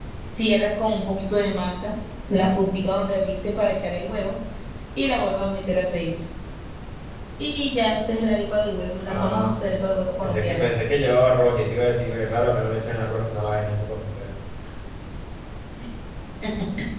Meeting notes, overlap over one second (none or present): none